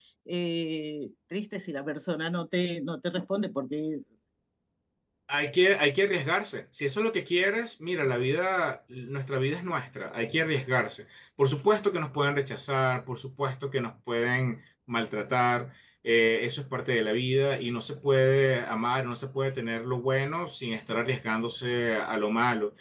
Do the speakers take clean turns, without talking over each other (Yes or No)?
Yes